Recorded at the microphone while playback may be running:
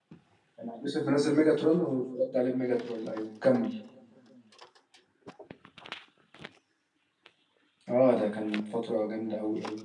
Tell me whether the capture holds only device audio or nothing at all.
No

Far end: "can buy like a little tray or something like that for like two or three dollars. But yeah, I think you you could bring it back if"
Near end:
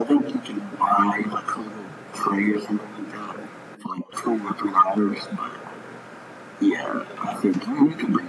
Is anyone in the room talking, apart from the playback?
No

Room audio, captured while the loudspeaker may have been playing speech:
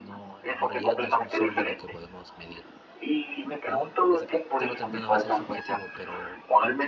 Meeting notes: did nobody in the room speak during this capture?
No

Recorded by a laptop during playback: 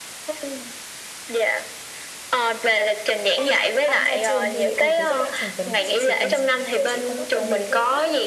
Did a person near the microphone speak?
Yes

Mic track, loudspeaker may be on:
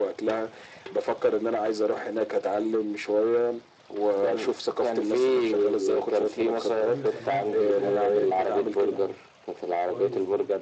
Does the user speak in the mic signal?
Yes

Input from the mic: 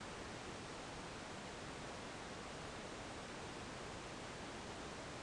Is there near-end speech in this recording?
No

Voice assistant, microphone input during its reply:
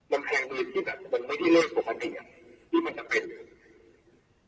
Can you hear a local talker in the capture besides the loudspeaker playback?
No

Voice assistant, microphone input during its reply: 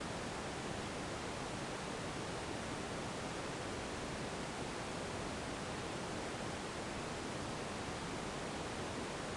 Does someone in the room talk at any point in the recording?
No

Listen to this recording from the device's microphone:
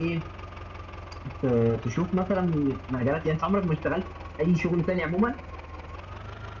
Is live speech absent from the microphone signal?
No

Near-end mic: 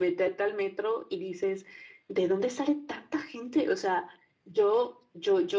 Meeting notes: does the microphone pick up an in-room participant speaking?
Yes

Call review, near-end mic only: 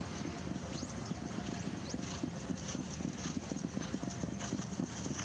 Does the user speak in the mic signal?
No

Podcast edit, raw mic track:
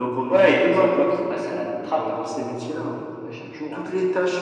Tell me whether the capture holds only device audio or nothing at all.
Yes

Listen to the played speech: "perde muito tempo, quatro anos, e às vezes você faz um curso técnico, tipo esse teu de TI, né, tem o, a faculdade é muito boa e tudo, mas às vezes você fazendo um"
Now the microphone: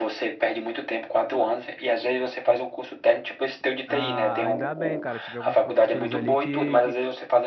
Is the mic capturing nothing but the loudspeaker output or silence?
No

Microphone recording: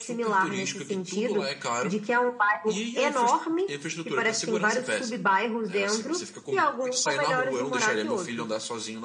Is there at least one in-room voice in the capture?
No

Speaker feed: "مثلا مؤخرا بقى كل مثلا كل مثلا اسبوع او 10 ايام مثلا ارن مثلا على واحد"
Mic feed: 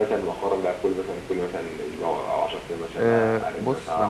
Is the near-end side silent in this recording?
No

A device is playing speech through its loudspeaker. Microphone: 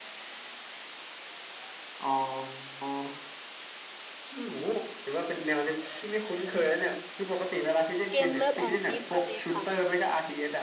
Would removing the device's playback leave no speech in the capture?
No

